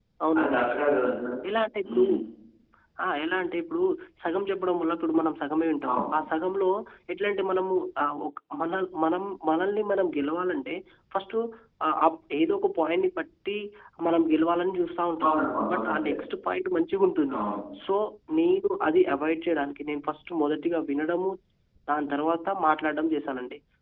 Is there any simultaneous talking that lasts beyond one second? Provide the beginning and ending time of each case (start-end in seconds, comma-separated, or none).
none